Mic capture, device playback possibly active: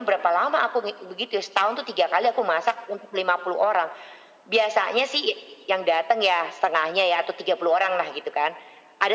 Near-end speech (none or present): none